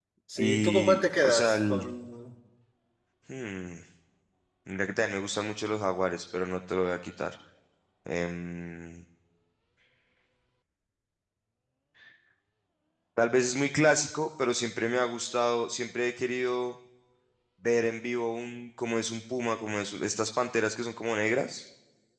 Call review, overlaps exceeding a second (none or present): present